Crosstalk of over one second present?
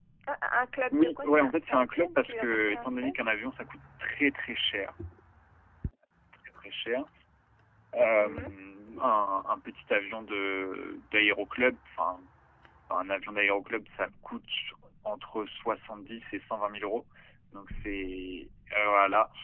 Yes, from 0.9 s

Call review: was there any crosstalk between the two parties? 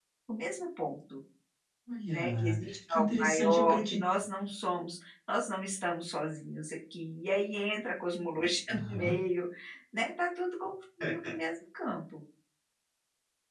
Yes, from 2.1 s

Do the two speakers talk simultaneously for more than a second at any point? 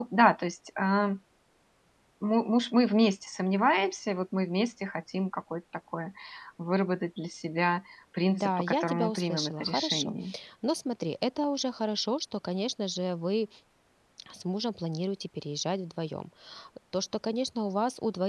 Yes, from 8.3 s

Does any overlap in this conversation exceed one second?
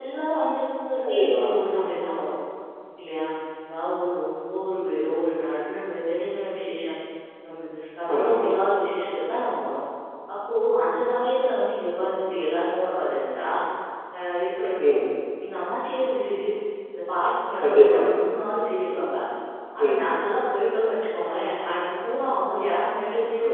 No

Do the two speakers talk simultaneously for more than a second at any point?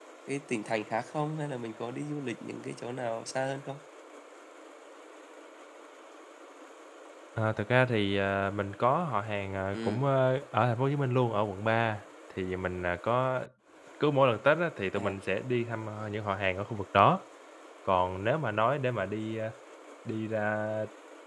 No

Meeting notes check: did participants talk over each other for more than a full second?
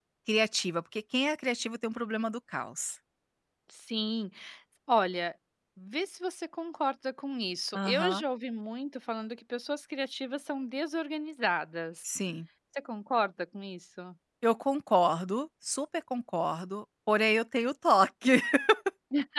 No

